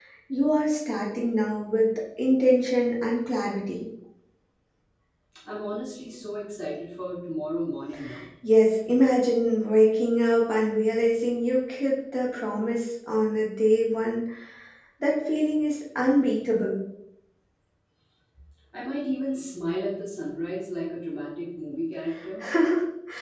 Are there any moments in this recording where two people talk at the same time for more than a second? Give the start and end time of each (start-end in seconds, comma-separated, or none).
none